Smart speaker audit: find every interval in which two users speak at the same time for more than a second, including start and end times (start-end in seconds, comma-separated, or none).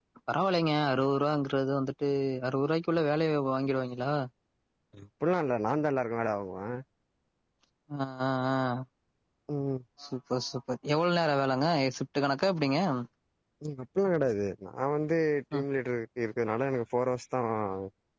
none